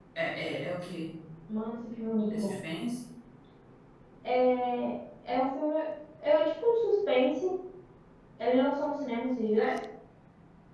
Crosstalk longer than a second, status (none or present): none